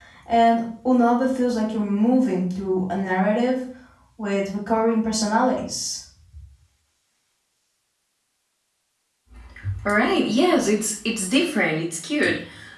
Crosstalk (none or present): none